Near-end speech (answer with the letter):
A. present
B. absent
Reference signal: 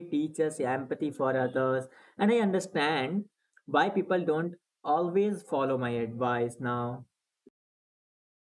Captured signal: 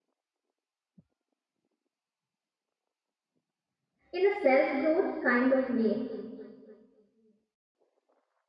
A